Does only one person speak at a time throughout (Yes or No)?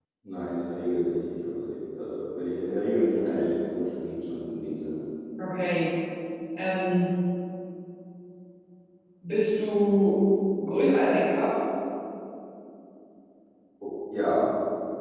Yes